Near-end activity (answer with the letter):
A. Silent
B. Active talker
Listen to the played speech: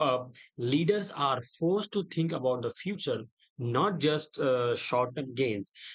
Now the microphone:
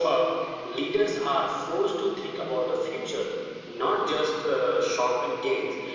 A